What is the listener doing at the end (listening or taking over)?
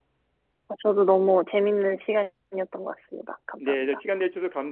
taking over